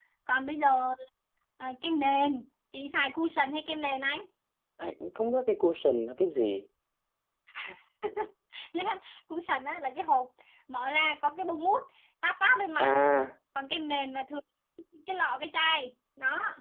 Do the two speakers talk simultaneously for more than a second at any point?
No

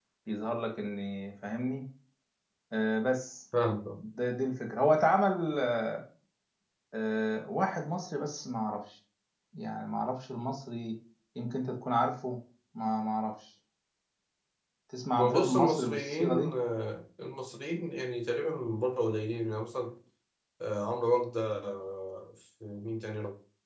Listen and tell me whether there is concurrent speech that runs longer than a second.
Yes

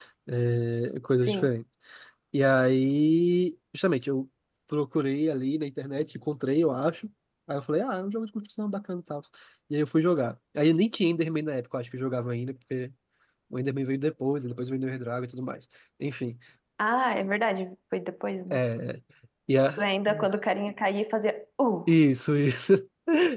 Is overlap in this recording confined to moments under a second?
Yes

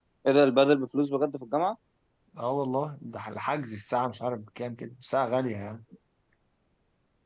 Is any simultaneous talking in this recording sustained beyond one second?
No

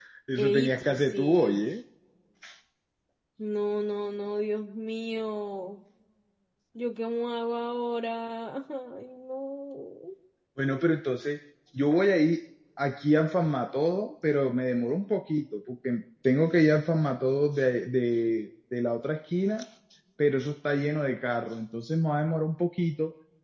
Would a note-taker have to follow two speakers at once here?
Yes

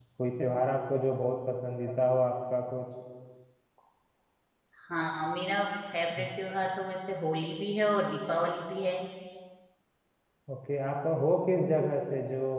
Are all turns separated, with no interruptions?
Yes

